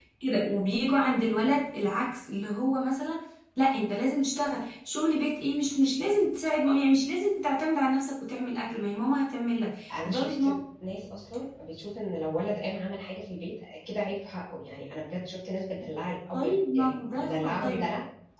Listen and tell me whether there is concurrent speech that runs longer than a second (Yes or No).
Yes